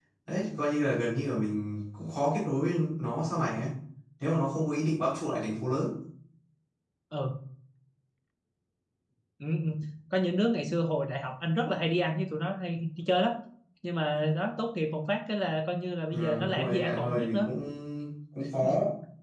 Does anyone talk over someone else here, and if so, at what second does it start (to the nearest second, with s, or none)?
16 s